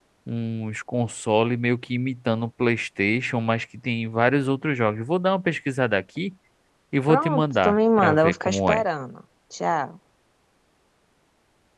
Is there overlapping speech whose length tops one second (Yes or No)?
Yes